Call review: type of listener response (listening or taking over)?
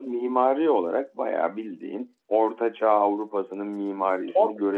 listening